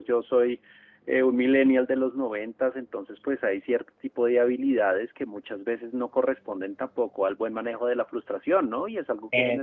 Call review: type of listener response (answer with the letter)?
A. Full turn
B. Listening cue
B